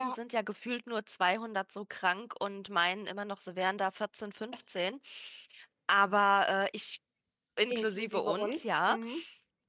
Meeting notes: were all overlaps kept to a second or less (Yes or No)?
No